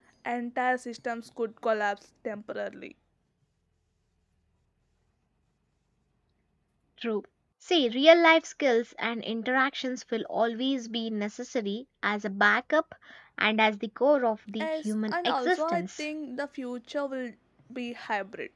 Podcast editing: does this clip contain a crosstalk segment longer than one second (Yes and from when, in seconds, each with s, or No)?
Yes, from 14.6 s